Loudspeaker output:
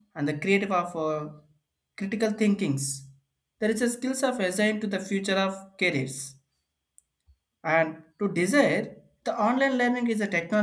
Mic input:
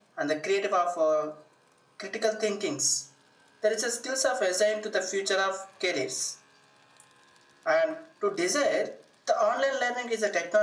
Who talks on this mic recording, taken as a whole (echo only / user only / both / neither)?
echo only